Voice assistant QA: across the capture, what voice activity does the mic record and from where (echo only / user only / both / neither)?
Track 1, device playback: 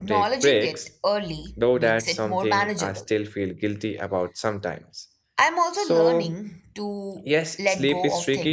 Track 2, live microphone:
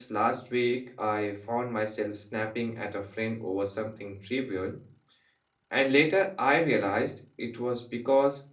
user only